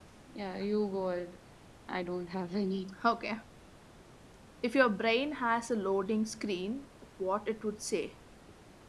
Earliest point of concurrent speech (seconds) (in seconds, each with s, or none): none